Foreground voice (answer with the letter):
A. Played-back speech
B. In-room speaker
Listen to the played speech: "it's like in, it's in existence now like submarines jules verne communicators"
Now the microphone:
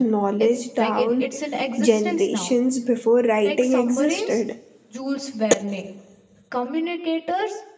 B